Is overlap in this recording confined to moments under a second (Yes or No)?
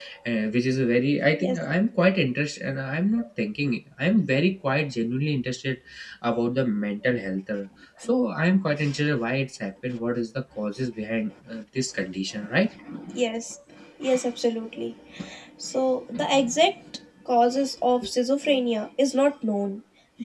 Yes